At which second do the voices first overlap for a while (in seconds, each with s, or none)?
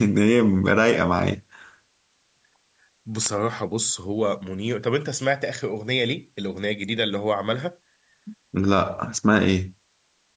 none